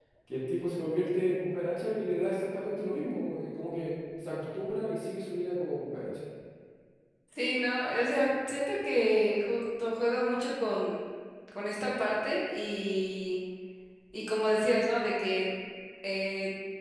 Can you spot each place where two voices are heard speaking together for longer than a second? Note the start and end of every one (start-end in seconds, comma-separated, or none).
none